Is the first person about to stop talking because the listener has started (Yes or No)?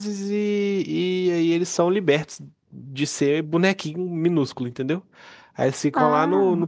No